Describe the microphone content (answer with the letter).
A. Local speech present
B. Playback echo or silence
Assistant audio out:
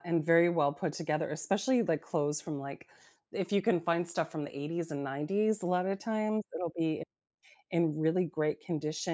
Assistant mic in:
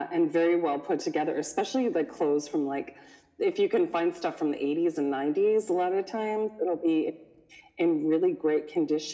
B